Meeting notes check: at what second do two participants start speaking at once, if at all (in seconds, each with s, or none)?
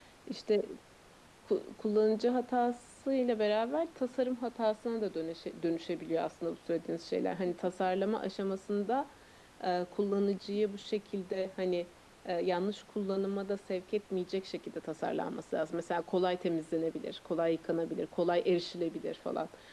none